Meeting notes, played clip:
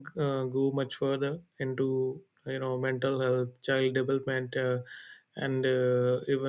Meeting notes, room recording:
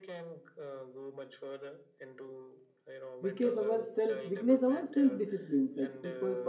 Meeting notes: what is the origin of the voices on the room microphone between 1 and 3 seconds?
echo only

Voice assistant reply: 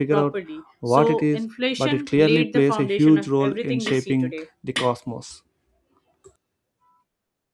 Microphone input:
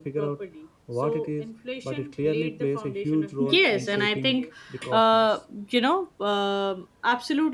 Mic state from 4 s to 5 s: both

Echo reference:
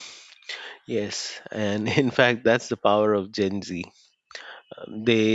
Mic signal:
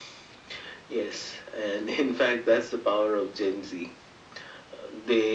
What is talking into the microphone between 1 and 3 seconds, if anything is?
echo only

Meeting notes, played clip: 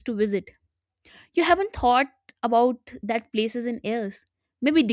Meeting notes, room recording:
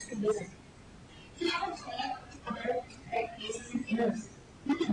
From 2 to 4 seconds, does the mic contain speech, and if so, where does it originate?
echo only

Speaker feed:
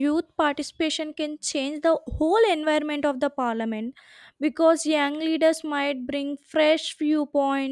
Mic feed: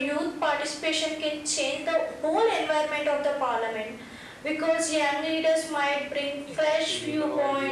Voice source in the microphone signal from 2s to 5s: echo only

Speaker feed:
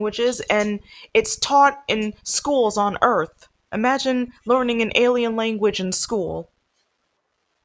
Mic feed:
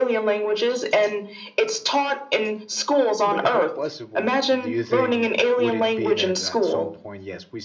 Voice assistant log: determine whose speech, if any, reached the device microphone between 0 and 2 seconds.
echo only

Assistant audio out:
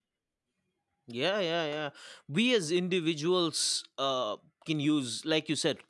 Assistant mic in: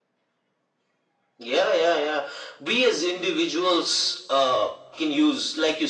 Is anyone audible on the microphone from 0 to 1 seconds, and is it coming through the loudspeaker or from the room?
neither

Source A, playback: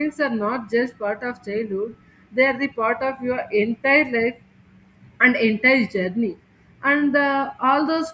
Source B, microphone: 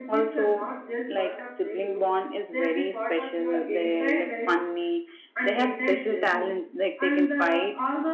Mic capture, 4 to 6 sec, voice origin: both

